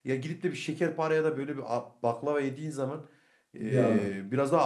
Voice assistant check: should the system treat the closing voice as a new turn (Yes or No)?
No